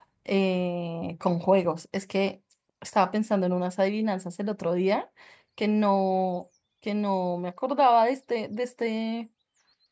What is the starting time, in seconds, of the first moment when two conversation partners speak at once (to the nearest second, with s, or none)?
none